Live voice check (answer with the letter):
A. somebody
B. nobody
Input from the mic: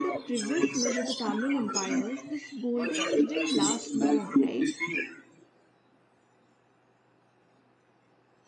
A